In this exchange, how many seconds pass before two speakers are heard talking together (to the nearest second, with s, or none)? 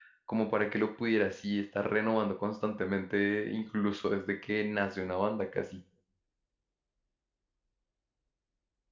none